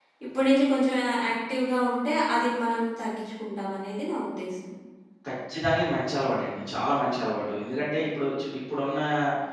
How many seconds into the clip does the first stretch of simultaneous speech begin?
none

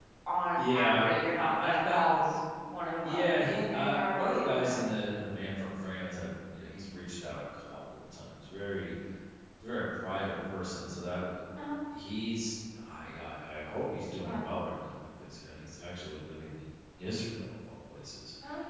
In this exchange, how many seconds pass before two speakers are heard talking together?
0.6 s

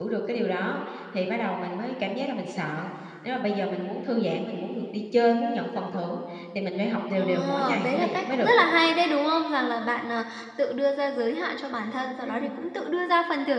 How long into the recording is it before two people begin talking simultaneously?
7.2 s

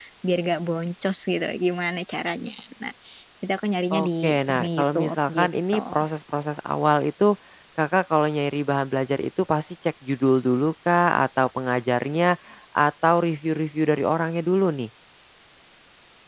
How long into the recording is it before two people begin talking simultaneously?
4.0 s

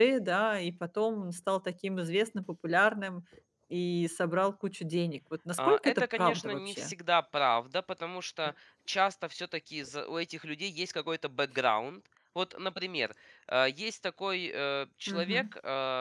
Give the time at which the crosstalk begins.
5.6 s

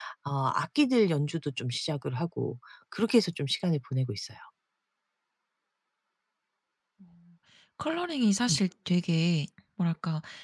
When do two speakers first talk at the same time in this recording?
none

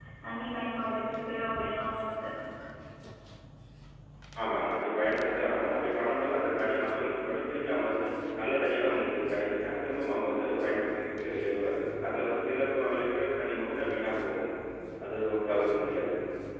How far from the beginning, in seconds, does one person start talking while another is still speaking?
none

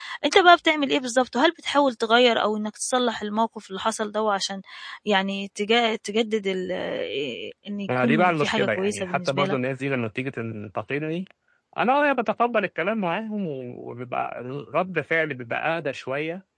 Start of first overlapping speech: 7.9 s

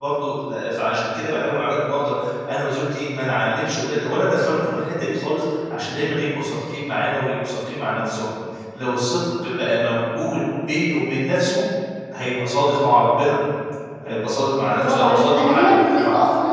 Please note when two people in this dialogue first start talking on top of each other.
14.7 s

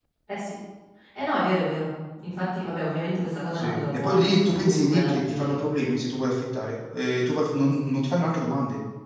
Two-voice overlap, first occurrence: 3.5 s

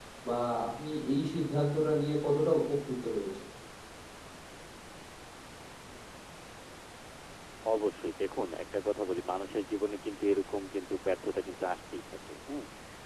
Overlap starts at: none

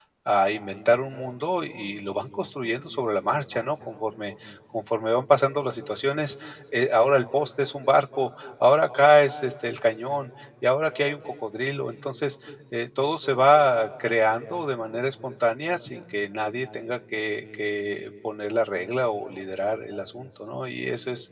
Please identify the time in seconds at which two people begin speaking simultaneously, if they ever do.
none

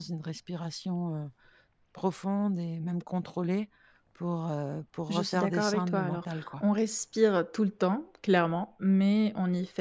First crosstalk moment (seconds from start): 5.1 s

